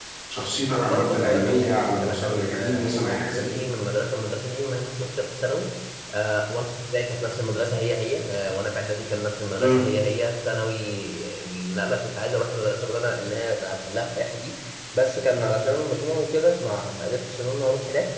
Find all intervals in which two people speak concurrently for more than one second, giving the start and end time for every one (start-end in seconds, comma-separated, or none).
0.7-3.6